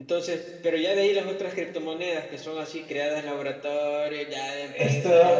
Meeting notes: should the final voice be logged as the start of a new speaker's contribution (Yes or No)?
Yes